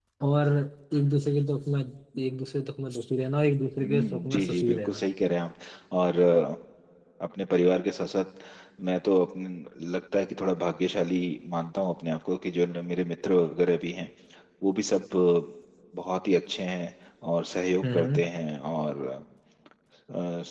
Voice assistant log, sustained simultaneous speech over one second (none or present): present